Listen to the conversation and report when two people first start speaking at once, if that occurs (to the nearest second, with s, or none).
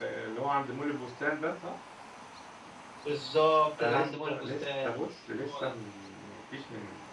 4 s